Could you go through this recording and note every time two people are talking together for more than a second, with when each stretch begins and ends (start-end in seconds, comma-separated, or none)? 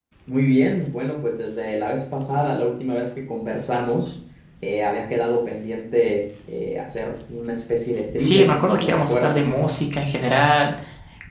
8.2-9.4